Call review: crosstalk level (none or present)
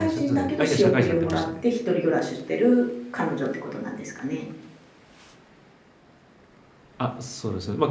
present